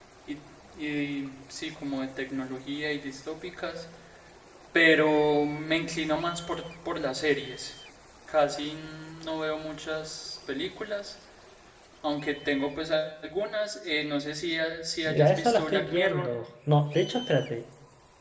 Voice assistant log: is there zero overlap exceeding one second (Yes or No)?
No